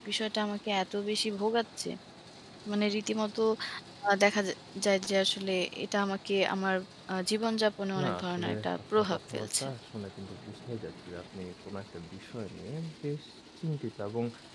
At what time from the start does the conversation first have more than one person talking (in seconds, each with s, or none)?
8.0 s